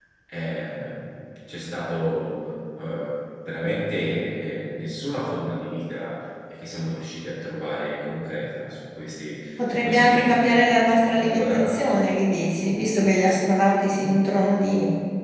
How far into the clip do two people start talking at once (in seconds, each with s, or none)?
9.6 s